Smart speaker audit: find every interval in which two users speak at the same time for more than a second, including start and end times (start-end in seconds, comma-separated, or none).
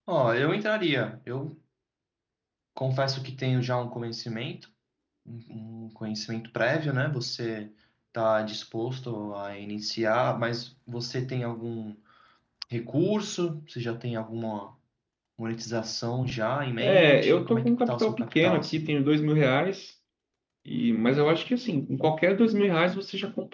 16.8-18.9